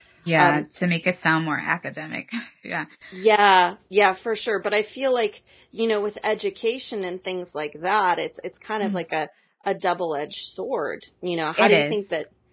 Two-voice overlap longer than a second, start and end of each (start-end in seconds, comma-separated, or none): none